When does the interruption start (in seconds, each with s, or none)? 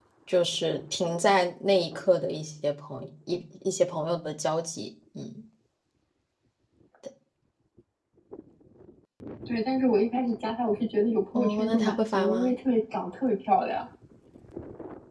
11.3 s